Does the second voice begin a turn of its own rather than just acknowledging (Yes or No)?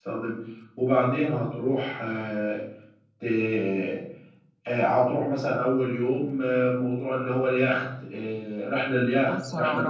Yes